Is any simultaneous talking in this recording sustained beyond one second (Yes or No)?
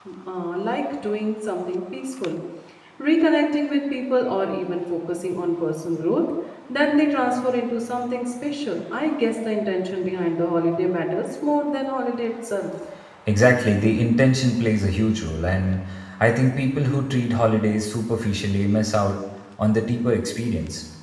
No